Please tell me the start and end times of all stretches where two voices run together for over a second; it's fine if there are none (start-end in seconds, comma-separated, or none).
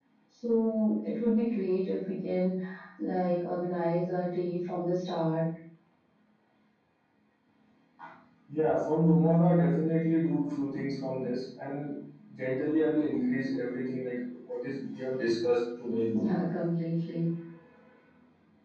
none